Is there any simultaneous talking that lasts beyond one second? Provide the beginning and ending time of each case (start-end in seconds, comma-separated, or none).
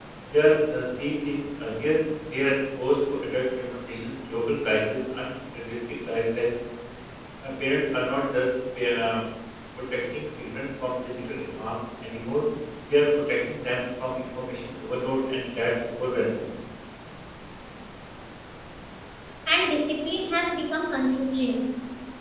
none